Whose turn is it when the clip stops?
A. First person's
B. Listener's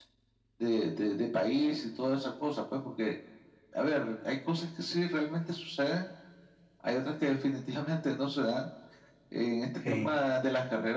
A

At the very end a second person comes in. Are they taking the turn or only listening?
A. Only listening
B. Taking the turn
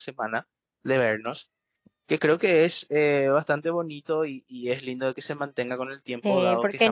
B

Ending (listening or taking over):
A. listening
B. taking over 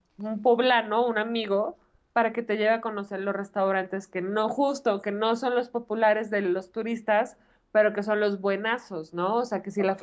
A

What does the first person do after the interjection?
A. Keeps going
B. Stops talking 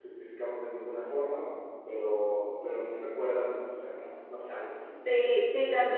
B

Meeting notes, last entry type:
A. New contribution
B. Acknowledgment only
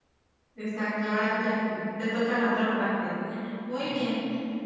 B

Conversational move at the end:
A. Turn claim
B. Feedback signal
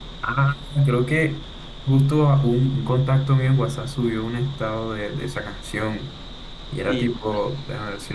B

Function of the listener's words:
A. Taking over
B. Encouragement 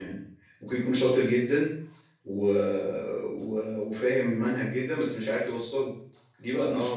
A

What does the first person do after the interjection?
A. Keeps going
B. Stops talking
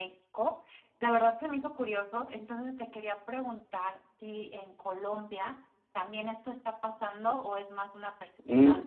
B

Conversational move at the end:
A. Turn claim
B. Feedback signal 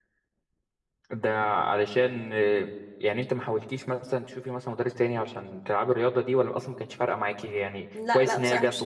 A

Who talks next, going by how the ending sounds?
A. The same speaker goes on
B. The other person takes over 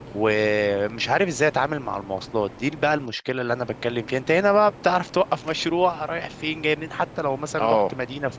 A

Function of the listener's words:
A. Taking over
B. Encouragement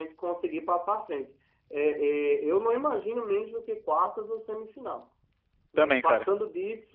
B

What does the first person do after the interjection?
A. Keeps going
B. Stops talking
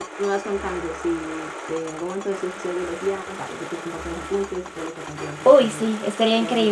B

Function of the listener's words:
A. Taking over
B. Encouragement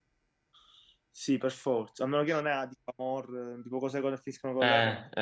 A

